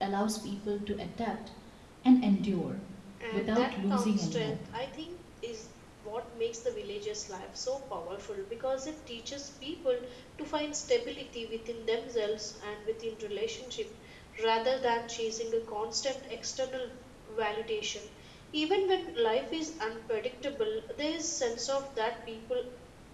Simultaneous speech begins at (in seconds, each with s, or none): 3.3 s